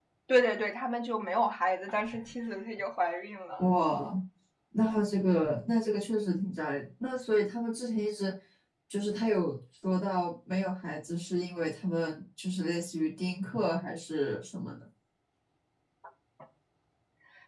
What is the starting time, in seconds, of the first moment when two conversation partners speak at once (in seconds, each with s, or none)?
none